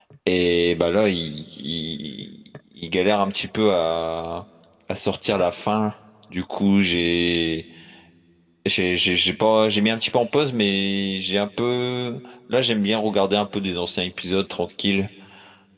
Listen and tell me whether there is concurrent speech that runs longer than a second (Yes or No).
No